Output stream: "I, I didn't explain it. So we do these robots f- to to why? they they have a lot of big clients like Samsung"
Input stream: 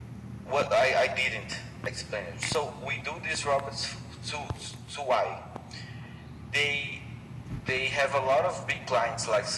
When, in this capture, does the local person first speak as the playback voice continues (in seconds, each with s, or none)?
none